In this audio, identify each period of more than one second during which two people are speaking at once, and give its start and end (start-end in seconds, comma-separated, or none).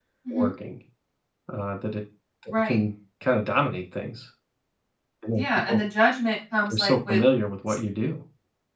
none